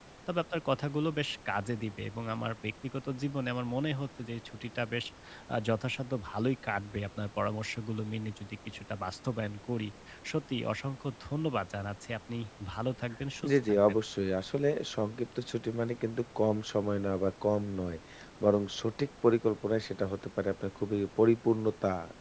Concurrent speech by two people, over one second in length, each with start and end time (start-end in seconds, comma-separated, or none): none